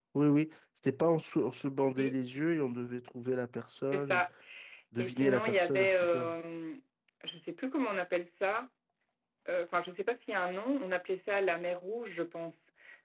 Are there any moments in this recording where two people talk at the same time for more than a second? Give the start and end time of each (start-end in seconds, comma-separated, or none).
5.0-6.3